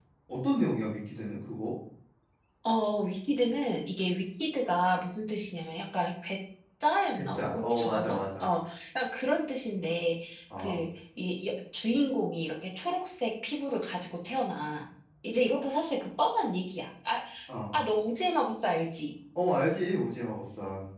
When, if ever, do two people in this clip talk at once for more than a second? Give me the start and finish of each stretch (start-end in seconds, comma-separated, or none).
7.1-8.5